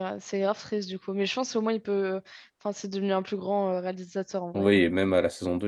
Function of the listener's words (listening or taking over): taking over